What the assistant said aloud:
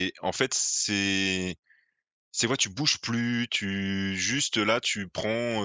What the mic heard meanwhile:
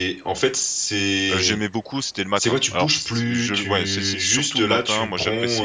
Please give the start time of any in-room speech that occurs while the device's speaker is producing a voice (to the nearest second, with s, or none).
1 s